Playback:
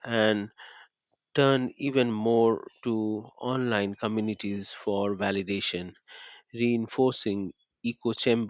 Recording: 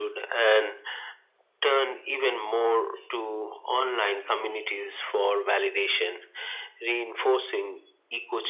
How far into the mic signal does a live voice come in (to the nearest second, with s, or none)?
none